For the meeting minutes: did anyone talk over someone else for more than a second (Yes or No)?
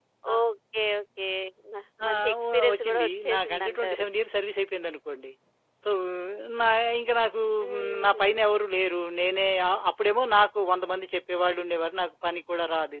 Yes